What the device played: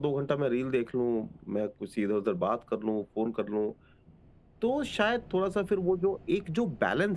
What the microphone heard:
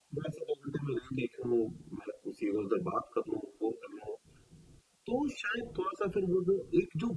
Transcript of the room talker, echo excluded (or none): none